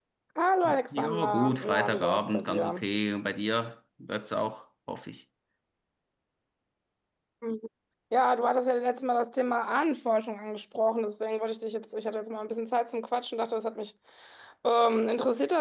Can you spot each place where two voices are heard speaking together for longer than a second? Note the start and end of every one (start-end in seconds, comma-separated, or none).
0.9-2.8